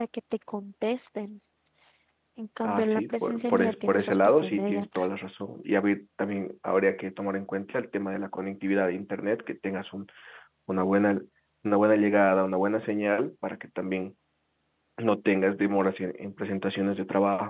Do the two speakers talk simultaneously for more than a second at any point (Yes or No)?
Yes